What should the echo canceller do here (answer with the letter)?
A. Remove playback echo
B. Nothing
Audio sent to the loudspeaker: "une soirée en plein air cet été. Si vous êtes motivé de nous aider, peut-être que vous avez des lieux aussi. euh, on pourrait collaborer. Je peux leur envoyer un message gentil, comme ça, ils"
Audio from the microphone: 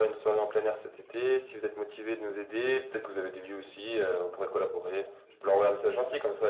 A